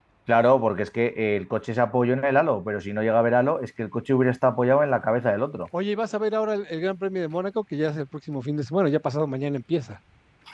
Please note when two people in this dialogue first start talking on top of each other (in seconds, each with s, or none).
none